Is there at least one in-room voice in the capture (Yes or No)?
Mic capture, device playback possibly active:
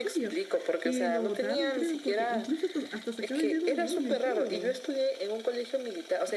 Yes